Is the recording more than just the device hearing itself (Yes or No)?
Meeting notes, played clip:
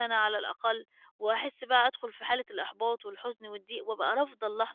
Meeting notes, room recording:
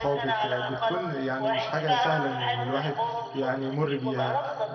Yes